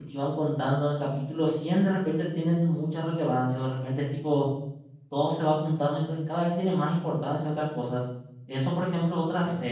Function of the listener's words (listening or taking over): listening